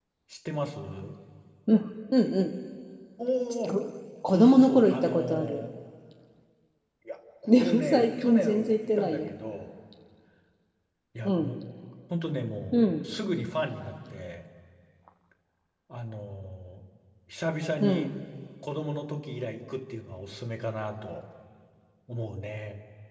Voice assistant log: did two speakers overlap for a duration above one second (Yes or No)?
Yes